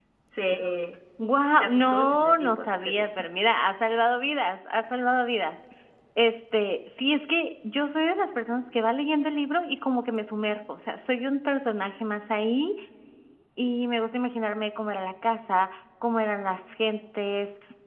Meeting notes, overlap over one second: present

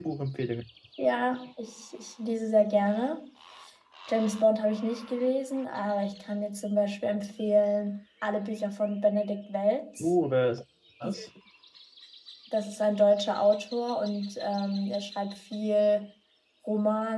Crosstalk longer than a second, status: none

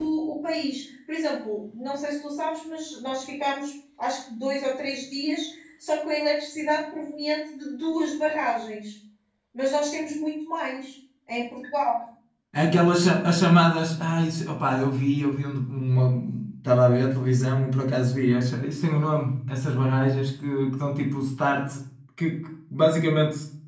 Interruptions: none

